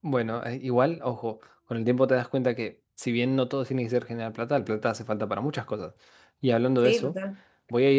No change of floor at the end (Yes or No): Yes